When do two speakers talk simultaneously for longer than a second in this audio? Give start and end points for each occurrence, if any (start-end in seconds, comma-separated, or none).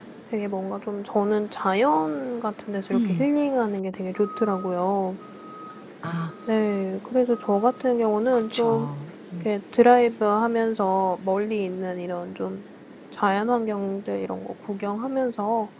none